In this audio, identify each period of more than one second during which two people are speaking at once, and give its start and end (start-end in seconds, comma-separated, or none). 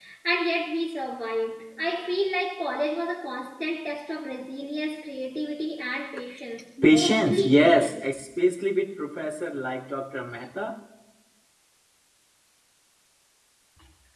6.8-8.1